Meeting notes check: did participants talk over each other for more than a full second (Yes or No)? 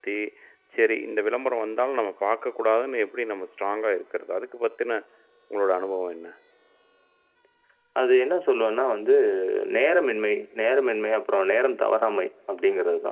No